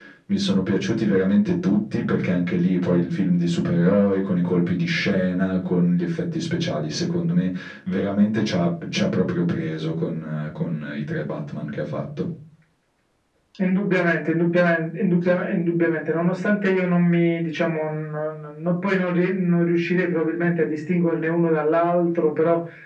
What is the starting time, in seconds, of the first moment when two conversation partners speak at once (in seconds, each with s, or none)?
none